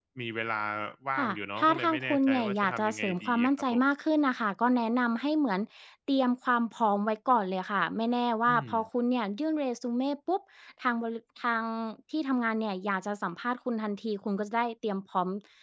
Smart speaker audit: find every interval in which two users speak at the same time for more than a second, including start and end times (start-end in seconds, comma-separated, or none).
1.2-3.8